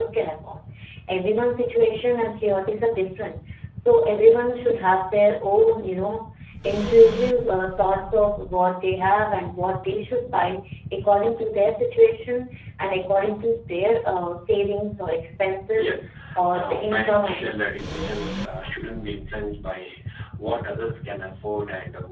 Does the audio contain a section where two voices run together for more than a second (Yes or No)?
Yes